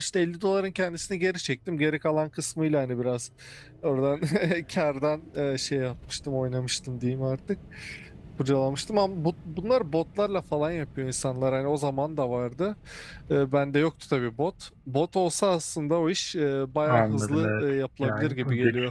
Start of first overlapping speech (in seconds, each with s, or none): 16.9 s